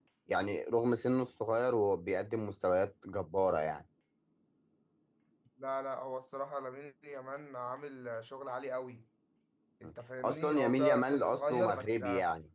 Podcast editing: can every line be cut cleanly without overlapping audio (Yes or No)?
No